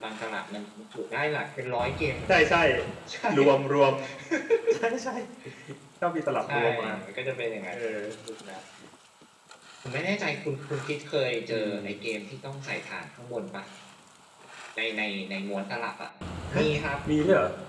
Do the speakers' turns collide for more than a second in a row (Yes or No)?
No